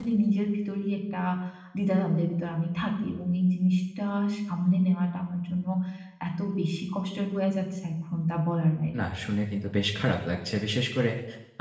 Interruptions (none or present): none